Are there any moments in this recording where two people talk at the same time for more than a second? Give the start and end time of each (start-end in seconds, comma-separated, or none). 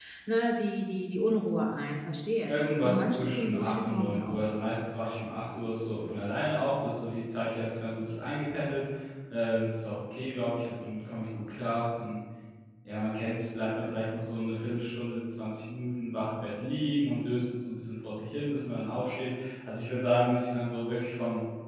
2.5-4.4